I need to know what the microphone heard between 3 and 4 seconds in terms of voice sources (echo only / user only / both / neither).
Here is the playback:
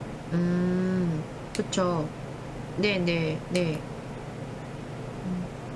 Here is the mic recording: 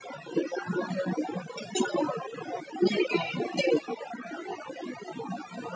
echo only